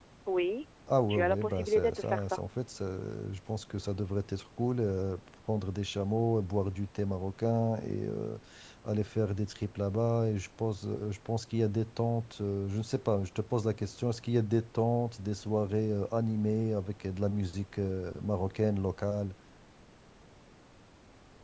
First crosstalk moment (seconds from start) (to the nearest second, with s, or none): 1 s